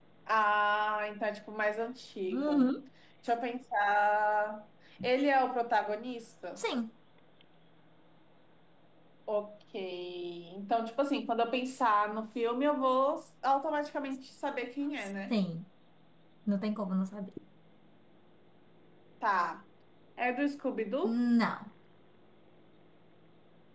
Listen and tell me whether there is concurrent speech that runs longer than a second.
No

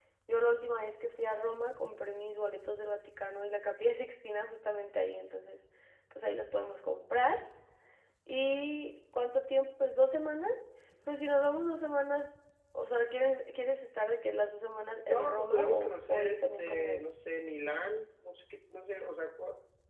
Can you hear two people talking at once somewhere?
Yes, from 15.1 s

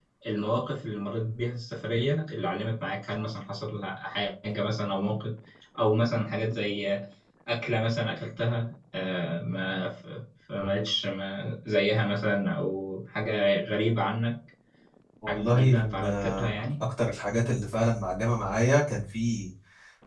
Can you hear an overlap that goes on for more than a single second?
Yes, from 15.3 s

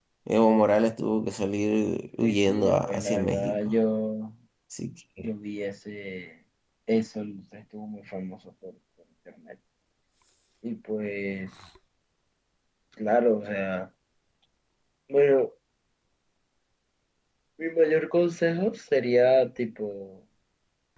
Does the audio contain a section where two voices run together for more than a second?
Yes, from 2.2 s

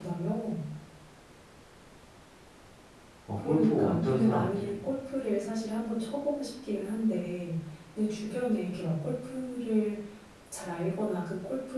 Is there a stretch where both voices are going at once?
Yes, from 3.4 s

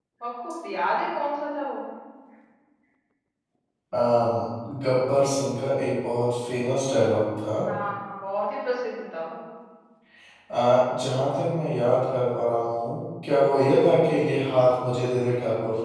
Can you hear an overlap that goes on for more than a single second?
No

